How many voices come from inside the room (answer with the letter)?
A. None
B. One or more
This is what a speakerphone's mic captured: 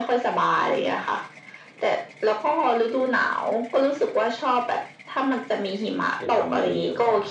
B